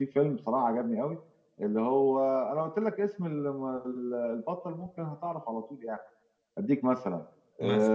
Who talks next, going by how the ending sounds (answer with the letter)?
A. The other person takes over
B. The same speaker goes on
B